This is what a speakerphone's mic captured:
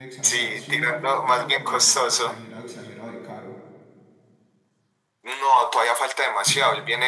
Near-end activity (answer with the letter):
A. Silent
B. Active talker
B